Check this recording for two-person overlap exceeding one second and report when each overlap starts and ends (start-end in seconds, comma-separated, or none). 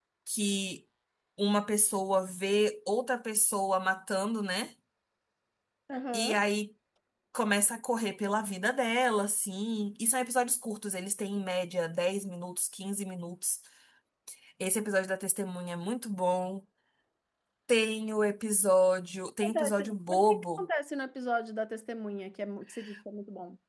19.4-20.6